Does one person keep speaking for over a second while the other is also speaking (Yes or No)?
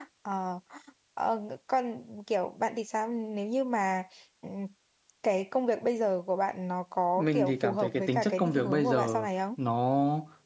Yes